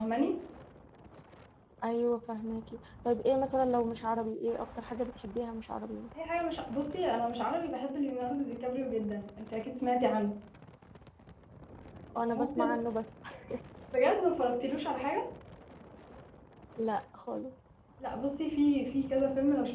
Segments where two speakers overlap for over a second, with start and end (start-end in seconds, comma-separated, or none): none